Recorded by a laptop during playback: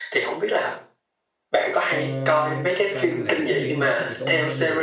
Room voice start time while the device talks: 1.9 s

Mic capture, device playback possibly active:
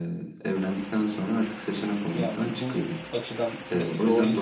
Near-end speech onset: 2.1 s

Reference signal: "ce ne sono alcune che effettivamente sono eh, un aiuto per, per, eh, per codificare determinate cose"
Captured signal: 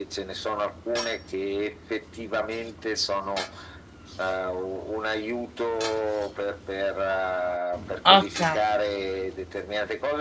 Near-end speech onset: 8.0 s

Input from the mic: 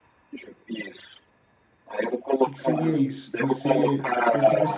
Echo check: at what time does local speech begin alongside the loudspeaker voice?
2.4 s

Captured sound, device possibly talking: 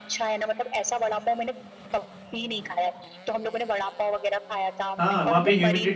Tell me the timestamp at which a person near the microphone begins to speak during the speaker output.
5.0 s

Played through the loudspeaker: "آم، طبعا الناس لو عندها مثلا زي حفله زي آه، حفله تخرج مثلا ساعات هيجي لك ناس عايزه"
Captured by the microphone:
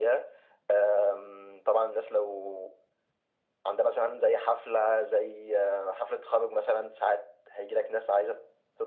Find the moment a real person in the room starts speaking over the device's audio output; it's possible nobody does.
none

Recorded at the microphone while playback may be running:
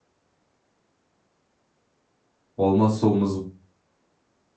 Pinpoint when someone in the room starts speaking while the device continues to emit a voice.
2.6 s

